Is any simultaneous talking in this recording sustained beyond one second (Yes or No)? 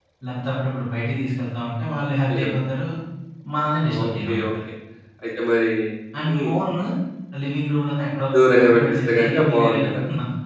Yes